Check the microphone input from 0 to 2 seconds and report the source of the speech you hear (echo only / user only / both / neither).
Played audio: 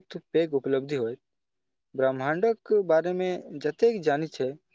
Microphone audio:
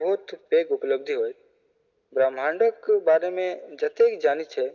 echo only